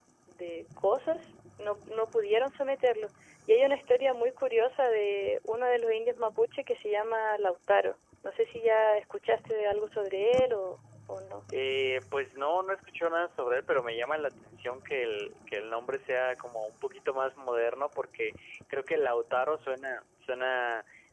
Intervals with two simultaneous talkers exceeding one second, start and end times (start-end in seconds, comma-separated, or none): none